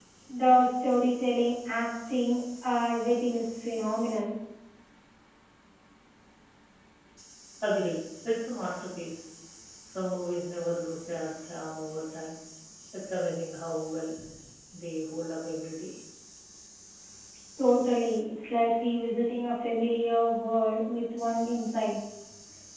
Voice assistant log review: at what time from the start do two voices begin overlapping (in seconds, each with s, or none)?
none